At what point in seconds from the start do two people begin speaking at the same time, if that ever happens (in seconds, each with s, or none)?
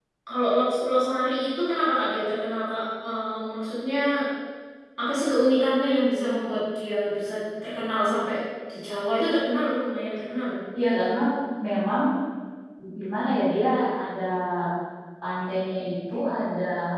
none